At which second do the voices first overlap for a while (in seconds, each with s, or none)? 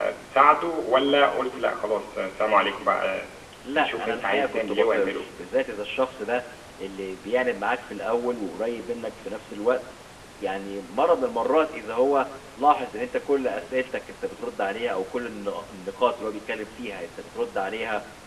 3.8 s